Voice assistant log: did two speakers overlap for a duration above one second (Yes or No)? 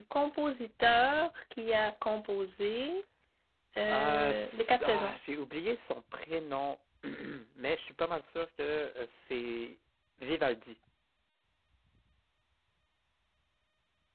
Yes